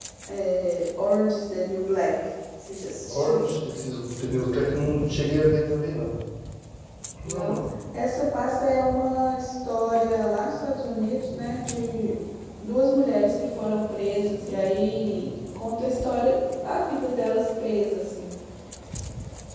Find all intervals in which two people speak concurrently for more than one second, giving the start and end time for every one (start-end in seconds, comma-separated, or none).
none